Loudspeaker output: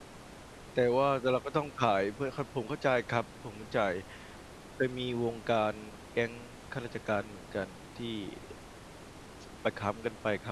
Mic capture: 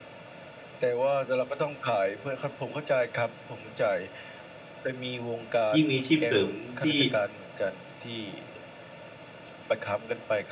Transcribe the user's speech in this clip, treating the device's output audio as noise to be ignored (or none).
ยิ่งมีอาชีพเสริมที่